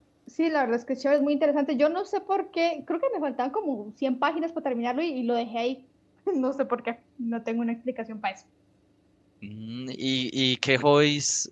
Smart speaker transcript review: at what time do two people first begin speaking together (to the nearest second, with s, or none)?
none